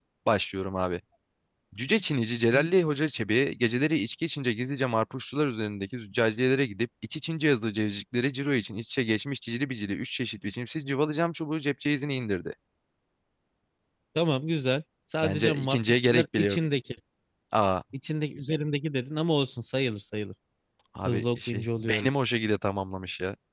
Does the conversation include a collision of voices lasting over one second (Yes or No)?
Yes